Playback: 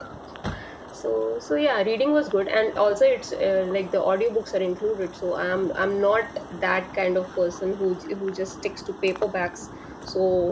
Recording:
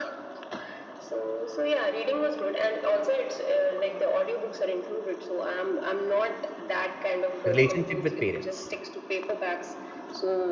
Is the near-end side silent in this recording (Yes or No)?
No